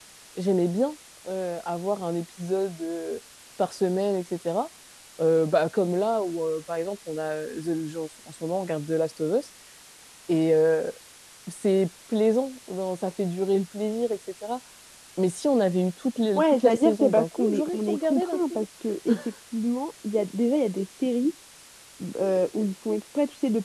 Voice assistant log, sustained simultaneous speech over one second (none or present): present